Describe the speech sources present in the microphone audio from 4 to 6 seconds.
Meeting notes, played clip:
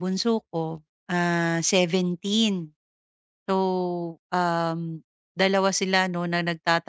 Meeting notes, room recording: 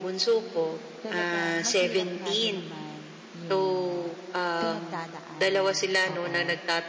both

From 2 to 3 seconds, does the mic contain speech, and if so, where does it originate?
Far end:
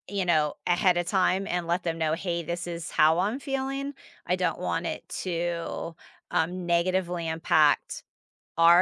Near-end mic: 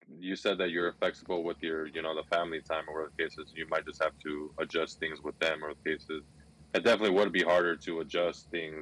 user only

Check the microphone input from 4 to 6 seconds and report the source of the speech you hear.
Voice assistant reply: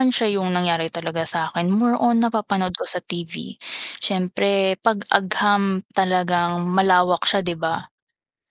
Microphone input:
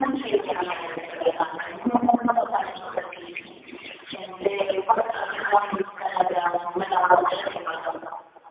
echo only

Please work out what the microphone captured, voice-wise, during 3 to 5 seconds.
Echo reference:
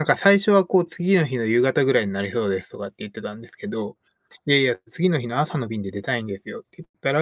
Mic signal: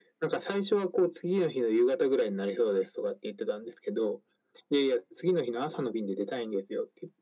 echo only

